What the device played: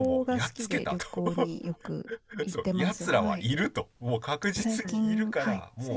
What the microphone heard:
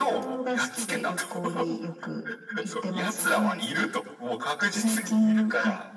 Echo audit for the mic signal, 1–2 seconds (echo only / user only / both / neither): echo only